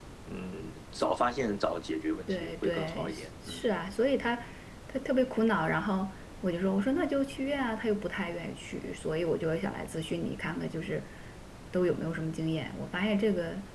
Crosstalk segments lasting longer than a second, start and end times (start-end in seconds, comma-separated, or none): 2.3-3.7